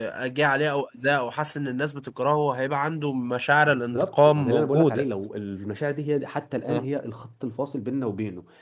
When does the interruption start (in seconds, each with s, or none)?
3.7 s